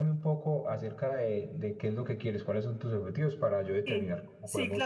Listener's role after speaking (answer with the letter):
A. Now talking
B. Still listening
A